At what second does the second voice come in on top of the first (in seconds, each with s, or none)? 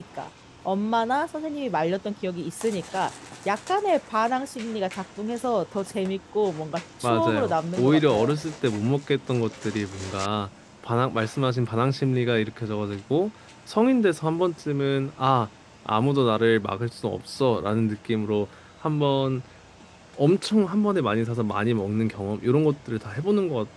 7.0 s